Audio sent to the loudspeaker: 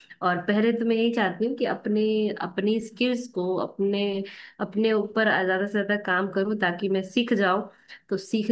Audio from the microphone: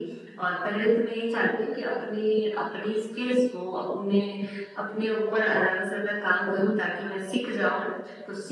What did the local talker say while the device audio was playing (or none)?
none